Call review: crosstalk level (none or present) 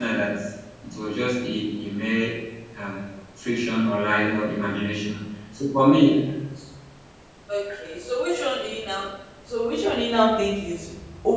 none